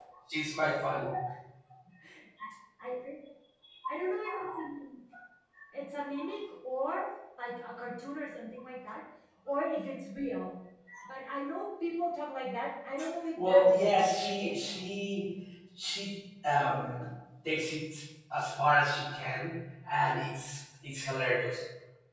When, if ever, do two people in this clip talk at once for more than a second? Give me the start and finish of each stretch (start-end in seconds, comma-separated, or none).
13.4-14.8